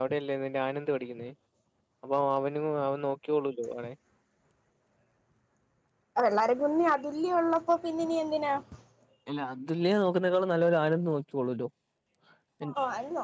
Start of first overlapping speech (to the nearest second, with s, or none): none